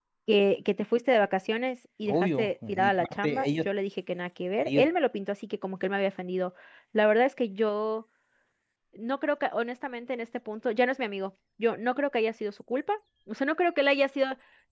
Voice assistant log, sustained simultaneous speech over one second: present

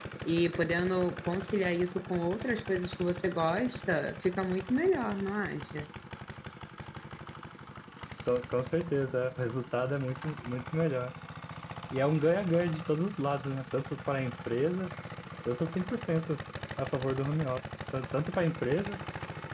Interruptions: none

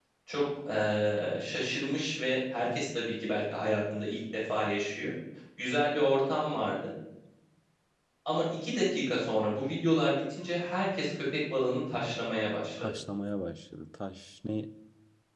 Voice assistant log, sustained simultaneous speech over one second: none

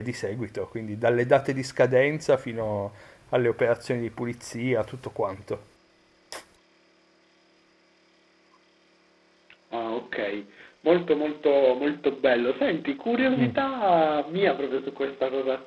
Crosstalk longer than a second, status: none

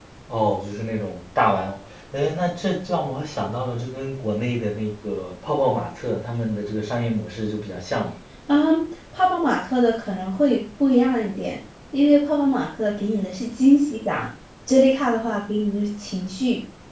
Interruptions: none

